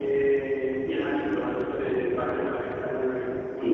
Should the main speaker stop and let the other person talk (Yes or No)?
Yes